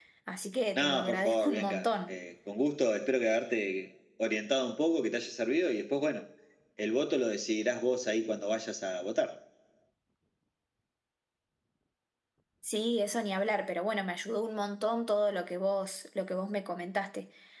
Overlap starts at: 0.8 s

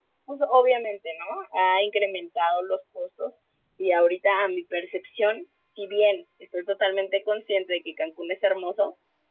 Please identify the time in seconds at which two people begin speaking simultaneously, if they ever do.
none

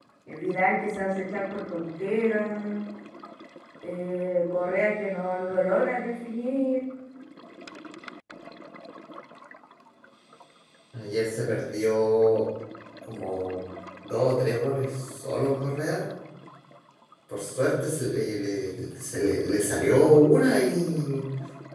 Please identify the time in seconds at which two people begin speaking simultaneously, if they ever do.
none

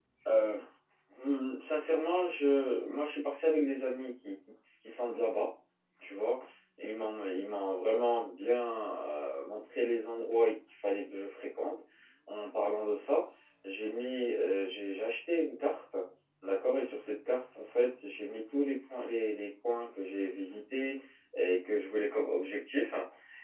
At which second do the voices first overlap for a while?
none

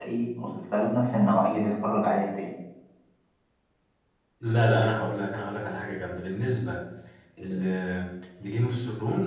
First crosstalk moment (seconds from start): none

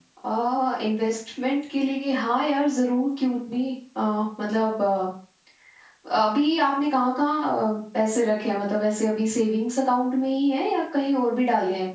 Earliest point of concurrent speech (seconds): none

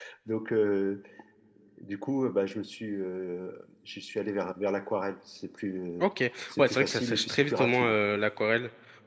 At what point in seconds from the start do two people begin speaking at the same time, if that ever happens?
6.6 s

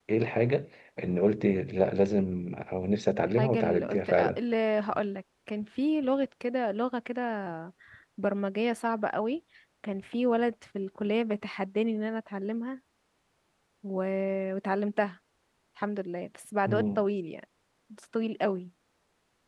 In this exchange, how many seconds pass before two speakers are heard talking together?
3.1 s

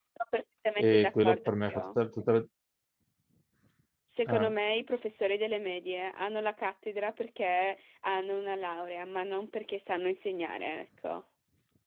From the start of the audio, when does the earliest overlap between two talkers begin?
0.8 s

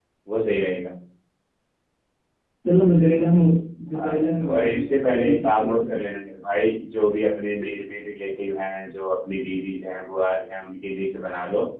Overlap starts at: 4.0 s

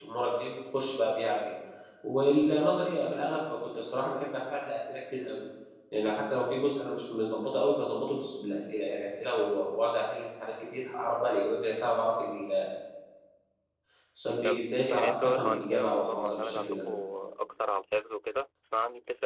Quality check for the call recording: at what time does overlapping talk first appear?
14.4 s

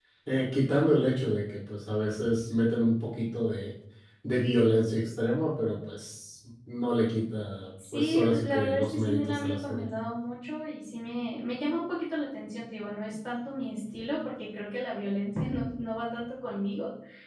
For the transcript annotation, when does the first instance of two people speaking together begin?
7.8 s

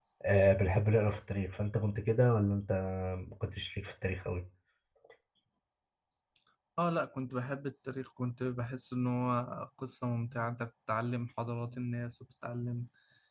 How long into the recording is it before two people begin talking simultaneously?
none

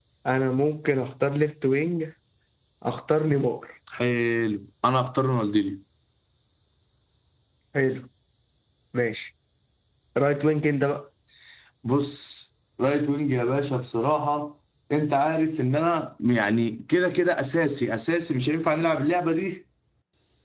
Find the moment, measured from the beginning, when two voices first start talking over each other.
none

